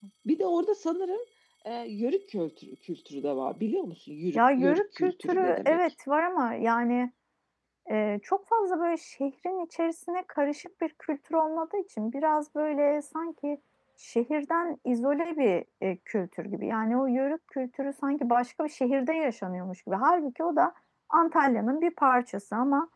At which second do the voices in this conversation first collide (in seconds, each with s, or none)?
4.3 s